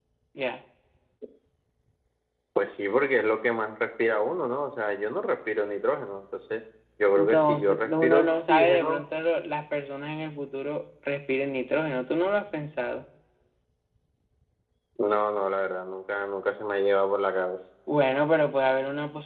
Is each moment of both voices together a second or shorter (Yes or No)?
No